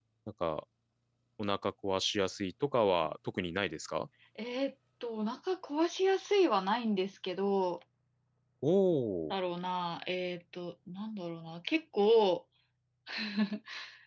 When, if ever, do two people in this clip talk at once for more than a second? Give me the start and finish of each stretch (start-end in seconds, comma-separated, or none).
none